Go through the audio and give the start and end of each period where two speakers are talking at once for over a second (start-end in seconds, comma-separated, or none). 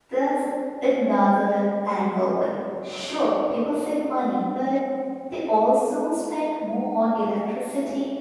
none